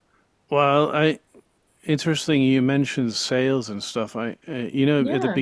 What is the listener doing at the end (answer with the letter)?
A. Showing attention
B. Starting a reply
A